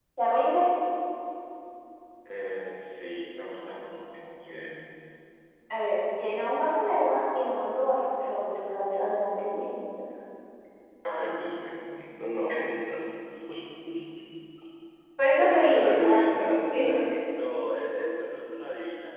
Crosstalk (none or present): present